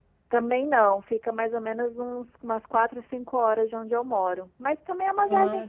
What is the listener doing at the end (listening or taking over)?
listening